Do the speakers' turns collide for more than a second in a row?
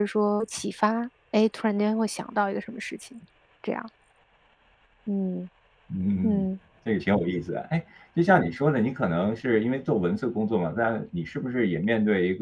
No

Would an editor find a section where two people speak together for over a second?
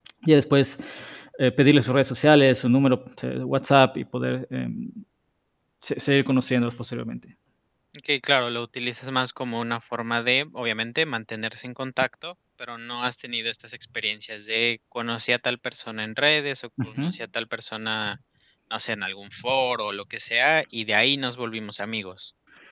No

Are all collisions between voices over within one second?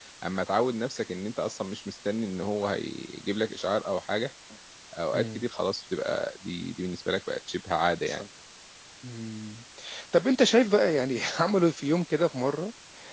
Yes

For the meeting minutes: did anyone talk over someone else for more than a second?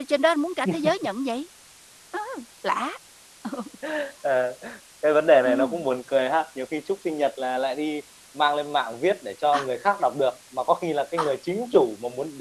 No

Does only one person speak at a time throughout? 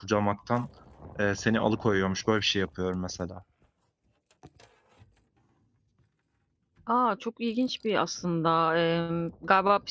Yes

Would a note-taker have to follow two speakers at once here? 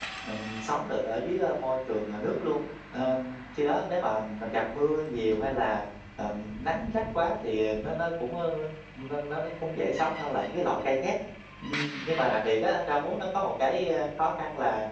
No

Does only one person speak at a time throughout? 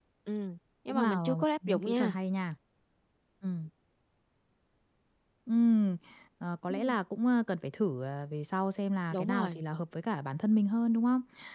No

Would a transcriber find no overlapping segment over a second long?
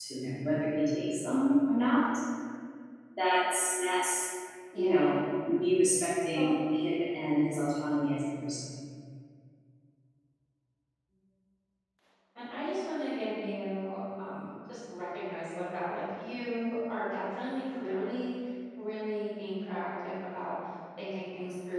Yes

